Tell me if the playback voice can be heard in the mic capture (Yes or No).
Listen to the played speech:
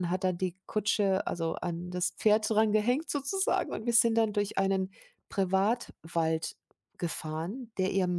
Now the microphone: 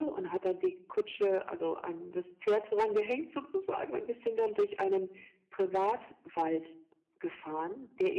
Yes